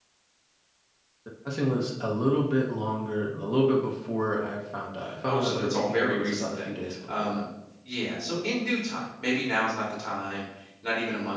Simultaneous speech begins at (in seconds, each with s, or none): 5.0 s